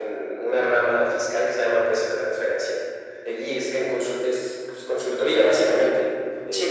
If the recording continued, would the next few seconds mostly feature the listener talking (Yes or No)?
Yes